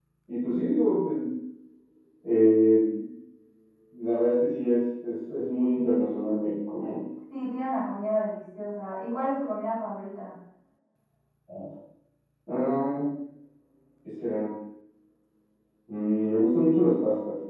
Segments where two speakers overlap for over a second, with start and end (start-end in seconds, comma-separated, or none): none